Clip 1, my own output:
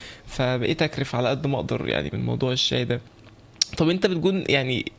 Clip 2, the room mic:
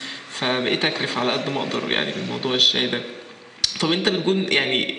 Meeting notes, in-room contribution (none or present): none